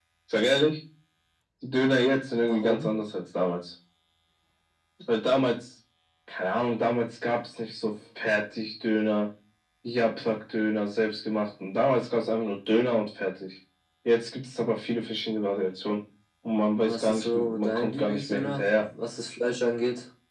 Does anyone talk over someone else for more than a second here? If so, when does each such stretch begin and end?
16.9-18.9

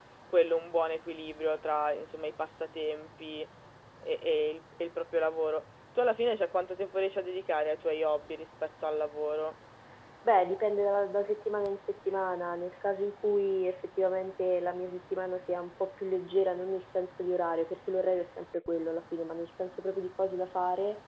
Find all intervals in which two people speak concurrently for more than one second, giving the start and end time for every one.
none

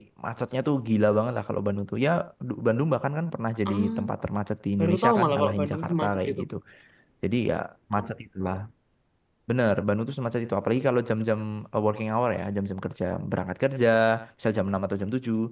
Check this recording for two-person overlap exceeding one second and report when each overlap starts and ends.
4.8-6.4

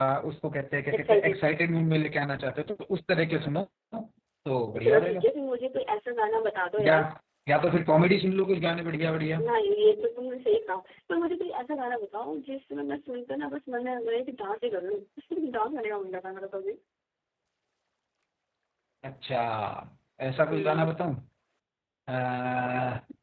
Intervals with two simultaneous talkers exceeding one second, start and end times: none

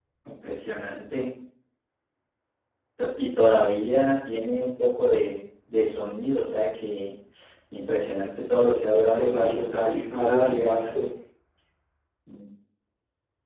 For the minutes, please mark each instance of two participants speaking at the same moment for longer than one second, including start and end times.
9.2-10.9

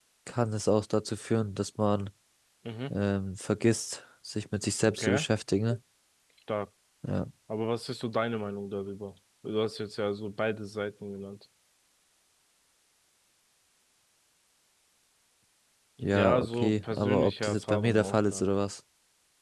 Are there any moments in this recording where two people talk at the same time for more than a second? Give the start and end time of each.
16.0-18.4

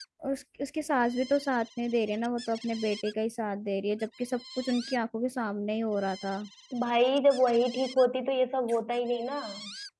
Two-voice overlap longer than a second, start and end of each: none

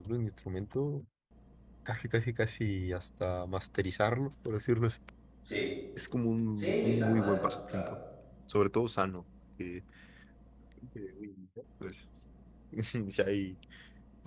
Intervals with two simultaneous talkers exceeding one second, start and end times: 6.6-7.9

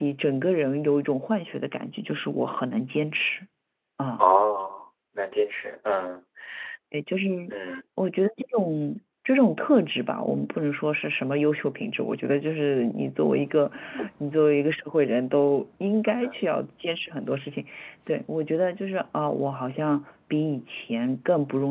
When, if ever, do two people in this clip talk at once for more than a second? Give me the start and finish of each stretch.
none

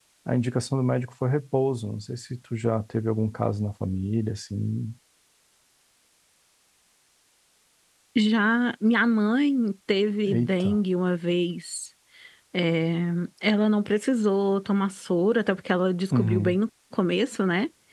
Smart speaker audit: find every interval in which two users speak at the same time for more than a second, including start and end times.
none

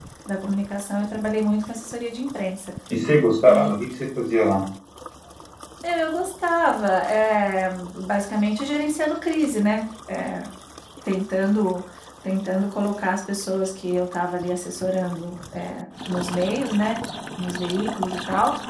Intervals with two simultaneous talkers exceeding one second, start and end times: none

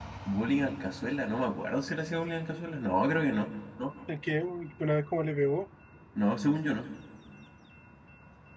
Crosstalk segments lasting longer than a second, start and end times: none

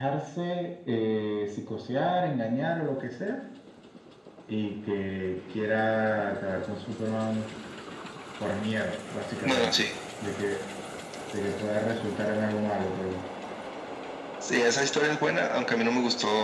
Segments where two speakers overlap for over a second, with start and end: none

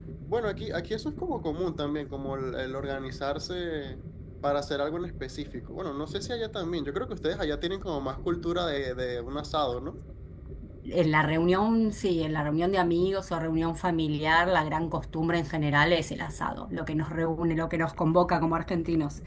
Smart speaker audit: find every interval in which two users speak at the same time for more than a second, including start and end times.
none

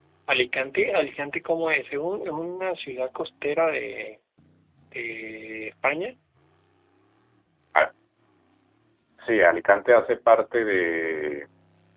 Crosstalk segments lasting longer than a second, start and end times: none

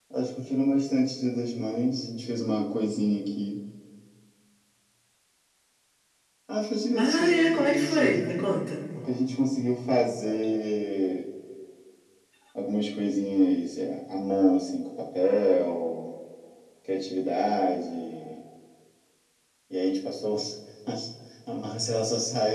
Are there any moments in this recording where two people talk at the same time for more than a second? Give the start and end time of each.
7.0-8.3

